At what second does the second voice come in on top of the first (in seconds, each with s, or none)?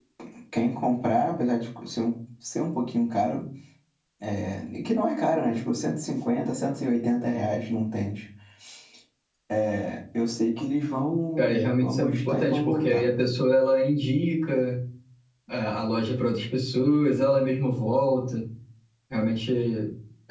11.4 s